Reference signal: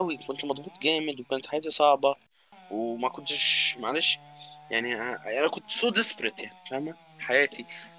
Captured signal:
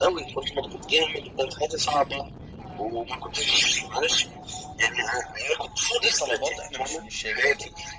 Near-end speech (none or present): present